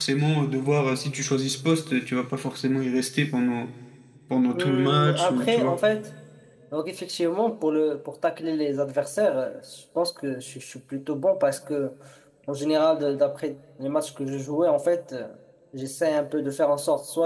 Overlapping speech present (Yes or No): Yes